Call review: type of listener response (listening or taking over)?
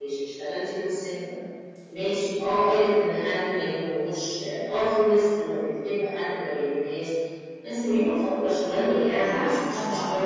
listening